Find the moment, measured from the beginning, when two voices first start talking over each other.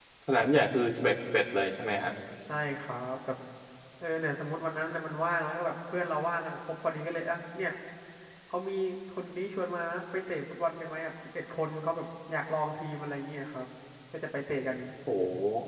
none

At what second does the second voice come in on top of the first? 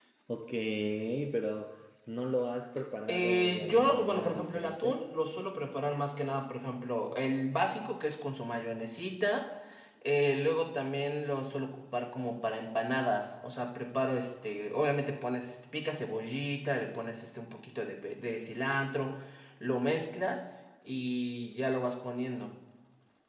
3.1 s

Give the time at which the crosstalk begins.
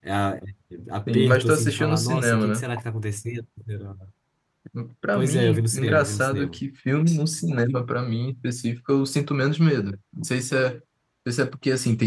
1.1 s

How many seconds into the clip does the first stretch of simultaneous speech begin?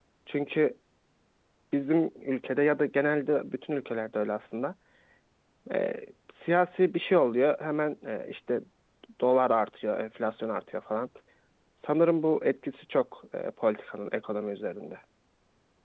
none

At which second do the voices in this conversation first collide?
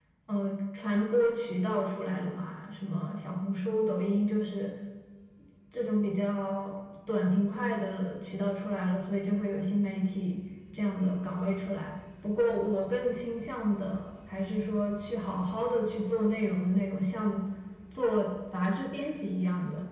none

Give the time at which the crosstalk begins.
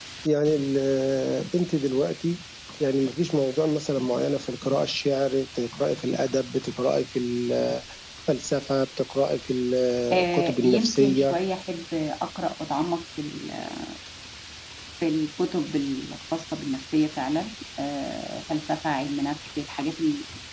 10.1 s

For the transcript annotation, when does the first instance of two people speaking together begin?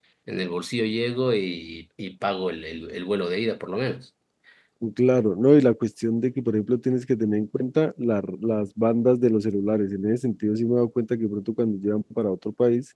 none

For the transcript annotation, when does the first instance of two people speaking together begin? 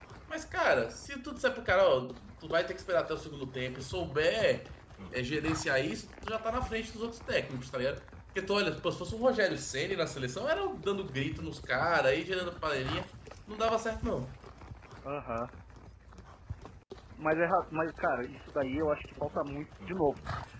none

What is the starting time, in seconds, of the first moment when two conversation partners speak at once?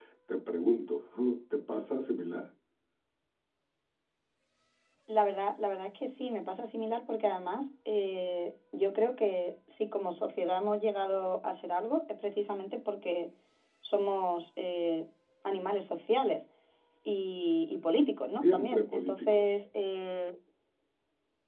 18.4 s

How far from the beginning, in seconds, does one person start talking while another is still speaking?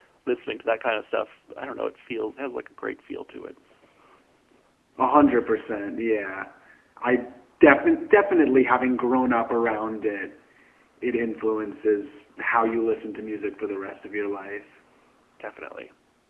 none

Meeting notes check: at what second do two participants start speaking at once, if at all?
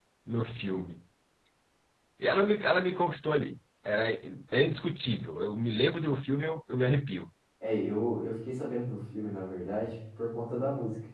none

